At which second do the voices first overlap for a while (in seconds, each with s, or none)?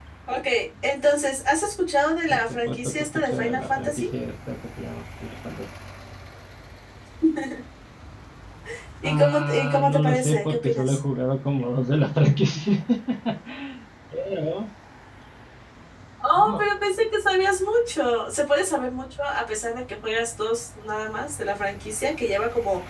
2.3 s